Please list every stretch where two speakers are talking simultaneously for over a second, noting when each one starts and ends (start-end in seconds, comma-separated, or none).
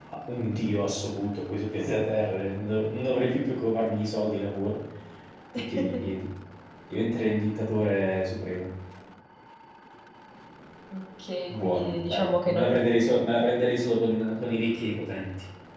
11.5-12.7